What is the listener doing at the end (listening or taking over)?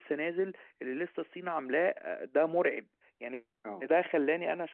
listening